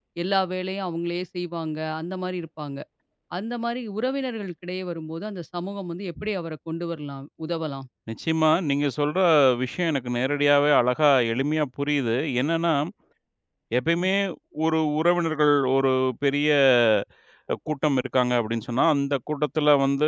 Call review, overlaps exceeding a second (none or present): none